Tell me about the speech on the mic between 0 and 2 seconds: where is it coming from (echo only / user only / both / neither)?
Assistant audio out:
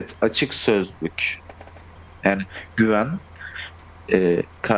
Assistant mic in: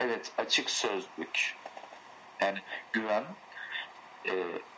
echo only